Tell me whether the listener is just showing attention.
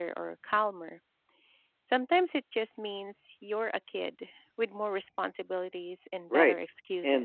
No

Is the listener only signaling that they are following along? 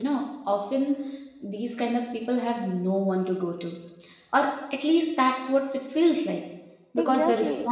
Yes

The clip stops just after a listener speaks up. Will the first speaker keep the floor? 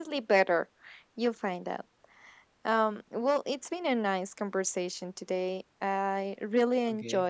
Yes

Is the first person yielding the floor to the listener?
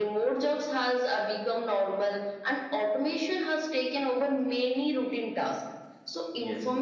No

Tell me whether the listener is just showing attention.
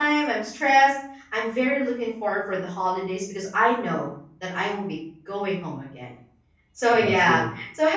Yes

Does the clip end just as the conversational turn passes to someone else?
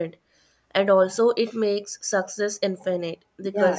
Yes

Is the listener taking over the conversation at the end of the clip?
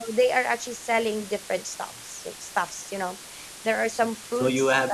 Yes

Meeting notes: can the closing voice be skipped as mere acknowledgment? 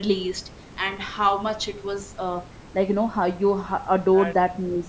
Yes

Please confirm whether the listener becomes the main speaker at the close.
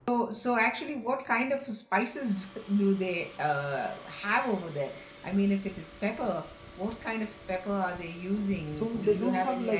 Yes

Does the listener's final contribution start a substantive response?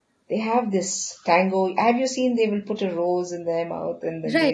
Yes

